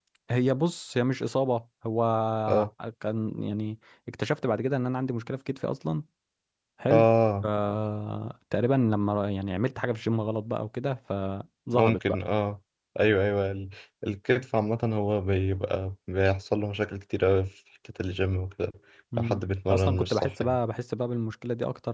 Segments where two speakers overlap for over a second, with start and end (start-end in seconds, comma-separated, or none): 19.2-20.6